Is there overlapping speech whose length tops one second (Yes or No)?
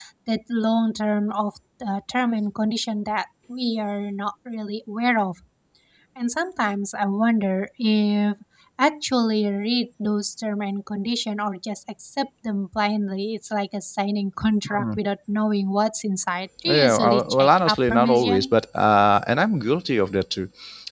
Yes